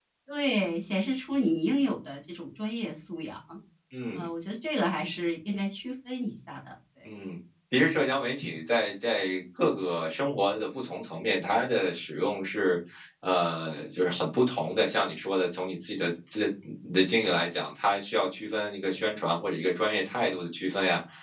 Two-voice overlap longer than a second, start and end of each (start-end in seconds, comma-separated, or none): none